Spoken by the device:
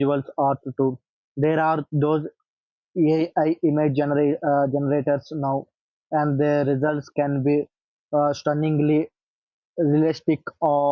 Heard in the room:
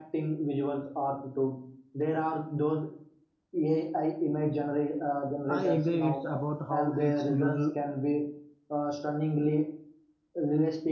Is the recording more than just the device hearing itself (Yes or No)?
Yes